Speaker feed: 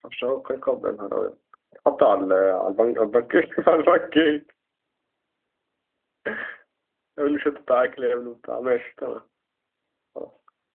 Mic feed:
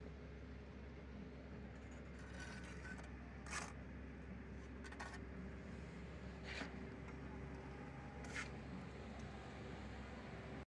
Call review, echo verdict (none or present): none